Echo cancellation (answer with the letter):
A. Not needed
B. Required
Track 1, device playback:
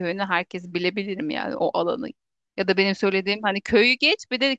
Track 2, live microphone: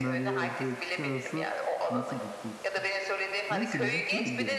B